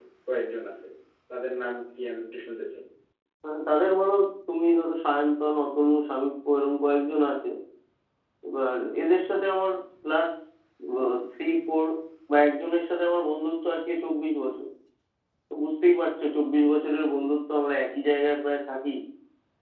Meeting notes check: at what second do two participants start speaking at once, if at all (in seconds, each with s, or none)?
none